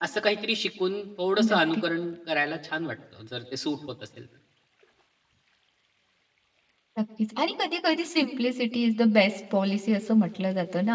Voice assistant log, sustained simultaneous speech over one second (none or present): none